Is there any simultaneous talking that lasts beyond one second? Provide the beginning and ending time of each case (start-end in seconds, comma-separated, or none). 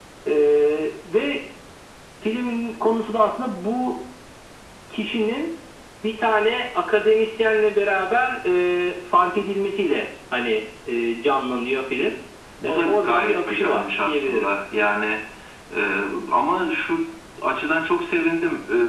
12.6-14.5